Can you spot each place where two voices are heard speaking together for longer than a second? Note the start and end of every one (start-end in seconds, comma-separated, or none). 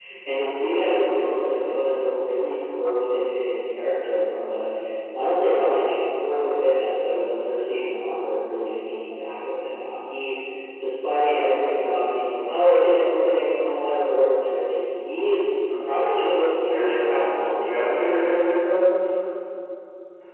16.7-18.1